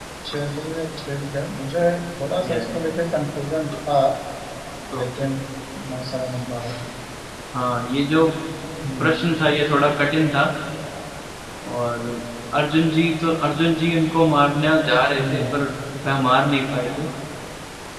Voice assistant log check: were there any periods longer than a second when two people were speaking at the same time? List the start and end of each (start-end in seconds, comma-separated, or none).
none